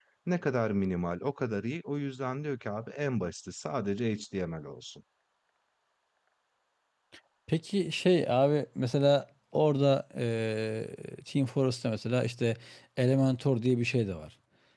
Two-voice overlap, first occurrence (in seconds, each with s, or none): none